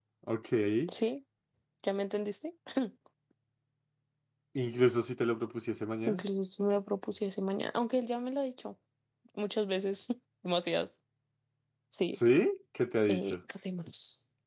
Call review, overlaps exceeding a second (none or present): none